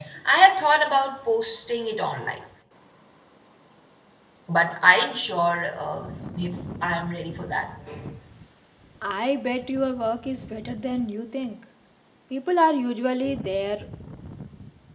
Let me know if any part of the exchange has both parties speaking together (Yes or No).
No